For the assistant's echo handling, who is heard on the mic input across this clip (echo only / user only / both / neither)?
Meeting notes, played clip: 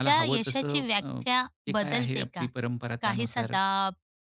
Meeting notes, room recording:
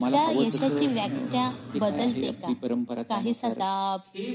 both